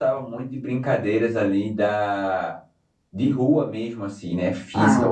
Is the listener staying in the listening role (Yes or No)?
Yes